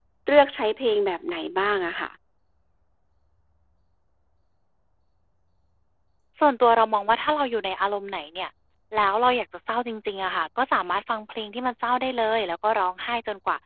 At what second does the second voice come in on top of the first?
none

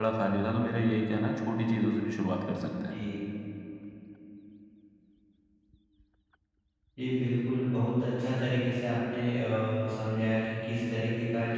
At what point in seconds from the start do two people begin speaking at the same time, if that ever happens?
none

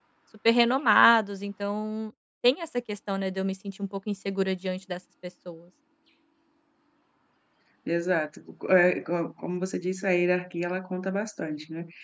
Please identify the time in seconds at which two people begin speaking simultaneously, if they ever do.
none

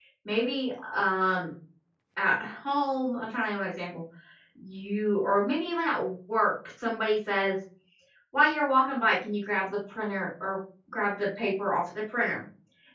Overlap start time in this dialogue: none

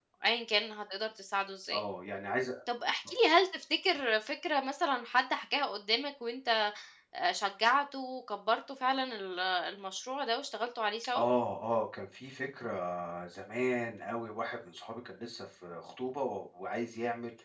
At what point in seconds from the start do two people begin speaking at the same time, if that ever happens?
none

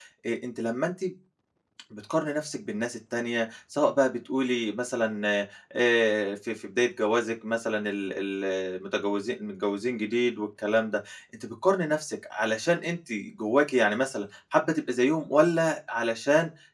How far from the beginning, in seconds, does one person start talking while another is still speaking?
none

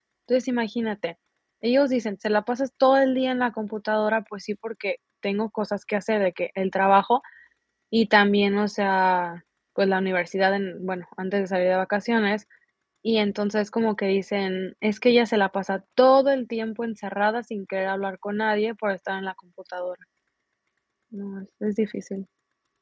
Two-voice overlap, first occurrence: none

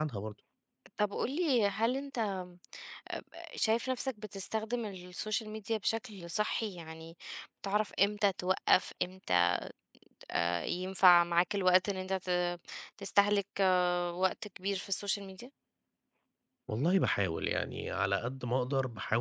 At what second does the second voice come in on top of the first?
none

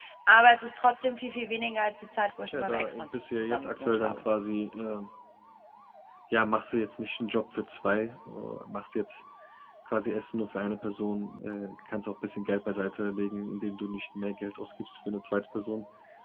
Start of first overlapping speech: 2.5 s

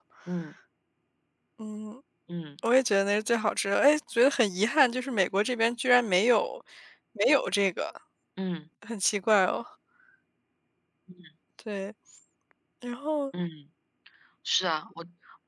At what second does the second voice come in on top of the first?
none

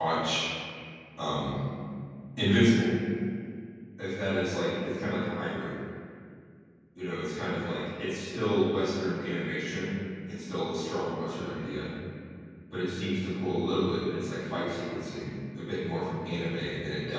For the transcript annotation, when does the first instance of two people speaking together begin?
none

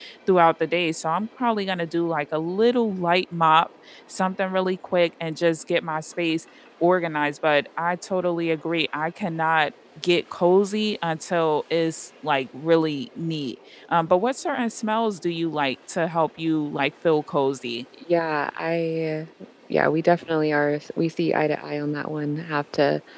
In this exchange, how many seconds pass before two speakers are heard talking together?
none

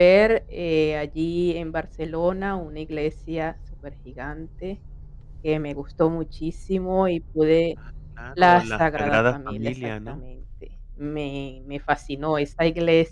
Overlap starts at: 8.4 s

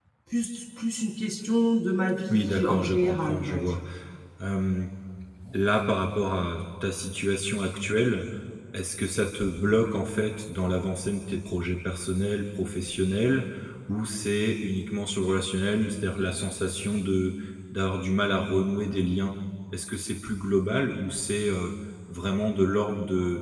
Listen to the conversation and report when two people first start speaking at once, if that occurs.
2.3 s

